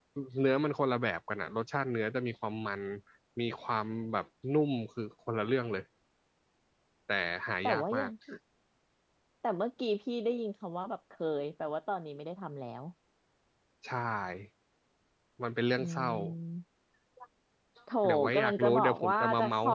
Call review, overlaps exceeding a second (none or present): present